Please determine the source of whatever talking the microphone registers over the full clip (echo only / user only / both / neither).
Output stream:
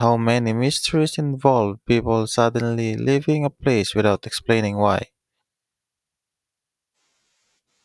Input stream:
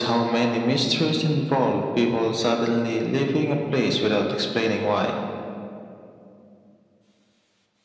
echo only